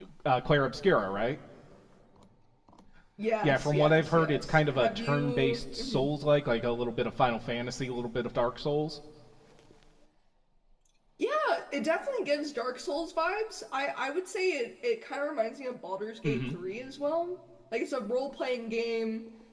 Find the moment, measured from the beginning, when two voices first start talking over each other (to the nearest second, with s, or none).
3 s